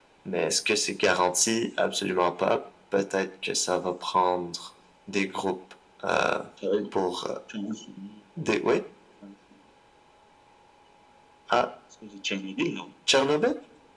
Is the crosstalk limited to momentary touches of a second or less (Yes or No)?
Yes